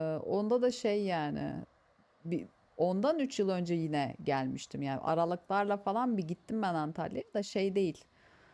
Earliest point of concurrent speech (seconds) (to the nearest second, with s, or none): none